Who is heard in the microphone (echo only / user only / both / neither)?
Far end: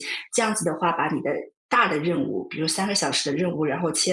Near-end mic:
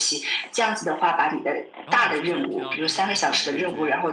both